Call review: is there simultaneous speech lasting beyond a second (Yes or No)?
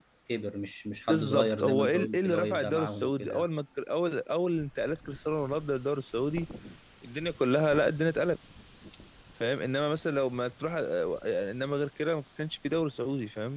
Yes